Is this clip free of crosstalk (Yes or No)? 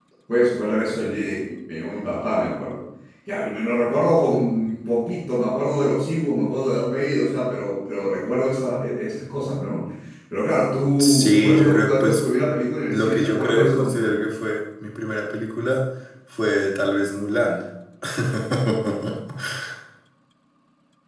No